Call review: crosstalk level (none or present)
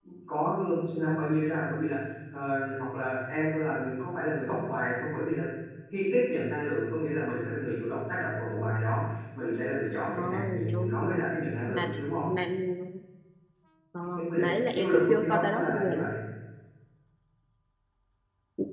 present